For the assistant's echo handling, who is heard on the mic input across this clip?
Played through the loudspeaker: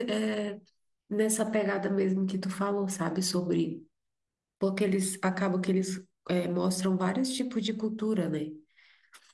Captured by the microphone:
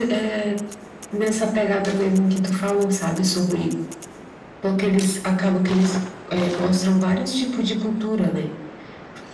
echo only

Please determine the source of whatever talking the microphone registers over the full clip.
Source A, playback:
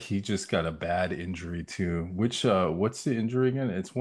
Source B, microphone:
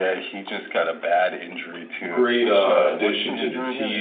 both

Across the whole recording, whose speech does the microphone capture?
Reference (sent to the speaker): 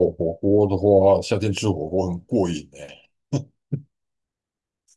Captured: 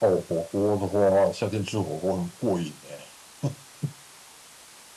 echo only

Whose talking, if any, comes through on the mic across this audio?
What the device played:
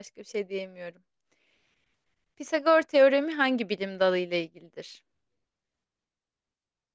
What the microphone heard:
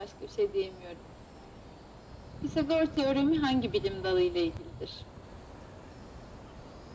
echo only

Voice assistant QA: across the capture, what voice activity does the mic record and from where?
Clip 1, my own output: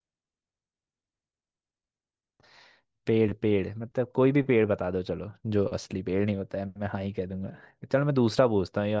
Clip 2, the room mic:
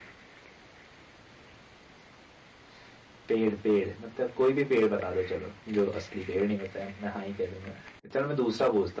echo only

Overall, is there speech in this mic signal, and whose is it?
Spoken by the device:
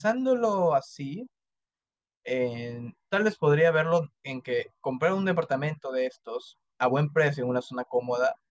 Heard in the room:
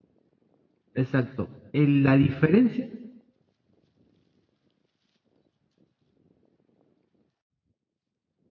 user only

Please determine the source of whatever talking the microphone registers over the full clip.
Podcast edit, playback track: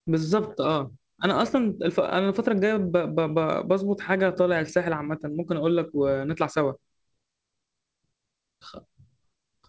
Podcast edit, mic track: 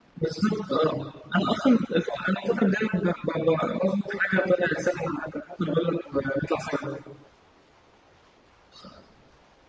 echo only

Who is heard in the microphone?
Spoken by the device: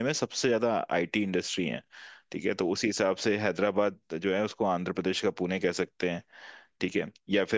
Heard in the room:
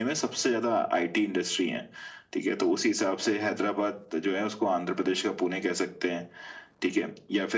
echo only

